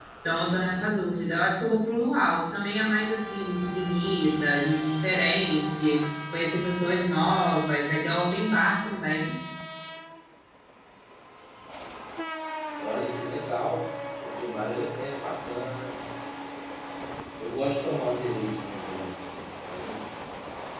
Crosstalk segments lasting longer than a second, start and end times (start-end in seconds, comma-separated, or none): none